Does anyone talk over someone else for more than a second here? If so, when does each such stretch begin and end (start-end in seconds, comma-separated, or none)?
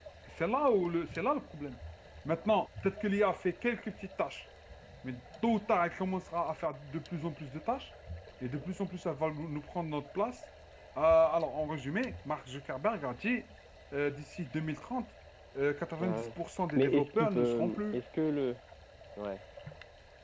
16.8-18.0